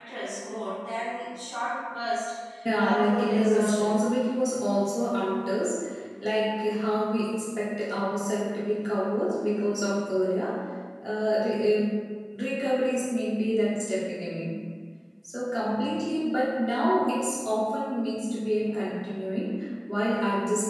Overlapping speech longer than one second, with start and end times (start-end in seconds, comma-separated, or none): 2.8-4.0